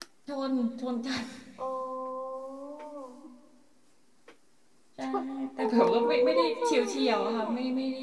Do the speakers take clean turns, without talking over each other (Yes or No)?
No